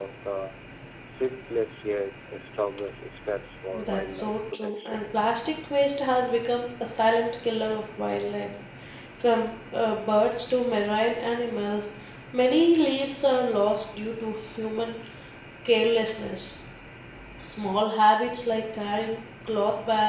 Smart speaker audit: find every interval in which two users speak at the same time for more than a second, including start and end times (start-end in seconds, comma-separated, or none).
3.8-5.0